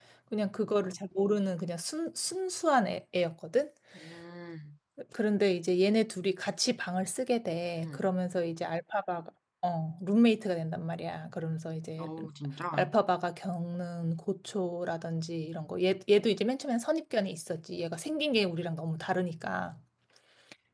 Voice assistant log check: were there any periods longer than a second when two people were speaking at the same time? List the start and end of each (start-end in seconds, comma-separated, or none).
none